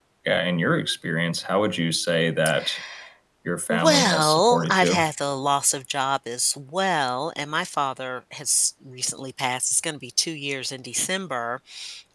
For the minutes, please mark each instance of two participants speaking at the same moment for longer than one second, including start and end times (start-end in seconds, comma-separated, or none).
3.7-5.0